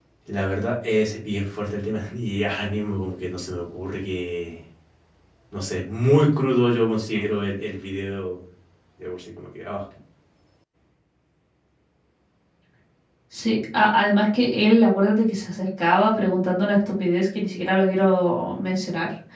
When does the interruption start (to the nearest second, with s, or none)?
none